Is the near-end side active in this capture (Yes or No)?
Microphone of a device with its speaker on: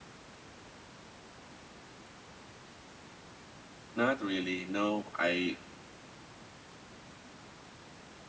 Yes